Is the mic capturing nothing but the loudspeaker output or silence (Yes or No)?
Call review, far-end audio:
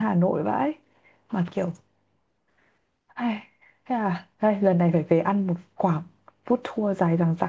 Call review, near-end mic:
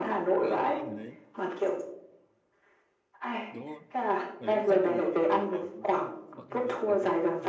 No